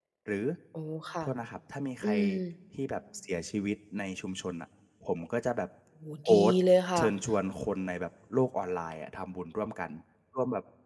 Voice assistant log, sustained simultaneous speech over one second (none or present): none